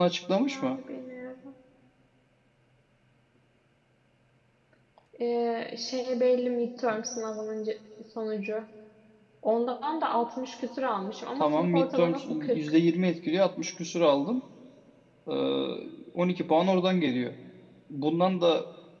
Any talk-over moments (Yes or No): Yes